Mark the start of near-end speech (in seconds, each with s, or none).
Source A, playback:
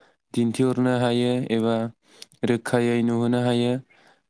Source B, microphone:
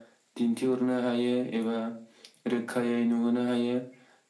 none